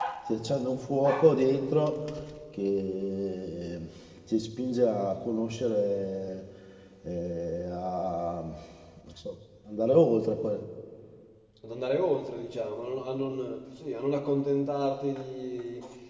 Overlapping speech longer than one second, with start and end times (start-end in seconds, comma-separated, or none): none